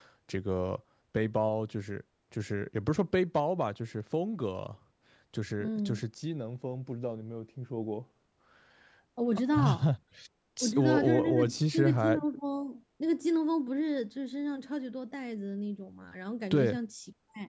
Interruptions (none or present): present